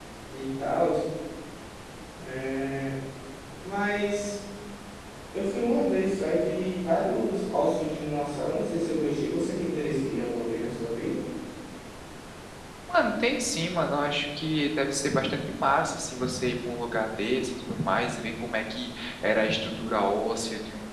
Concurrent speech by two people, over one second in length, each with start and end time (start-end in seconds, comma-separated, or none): none